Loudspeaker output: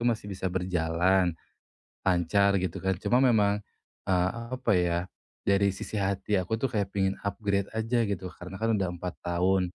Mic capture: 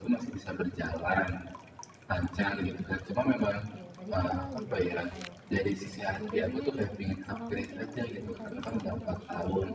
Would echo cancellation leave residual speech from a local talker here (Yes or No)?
Yes